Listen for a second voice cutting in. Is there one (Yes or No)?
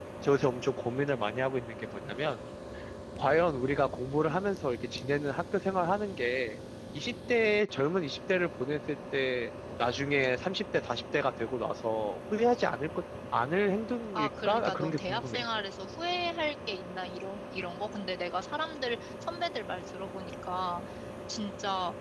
Yes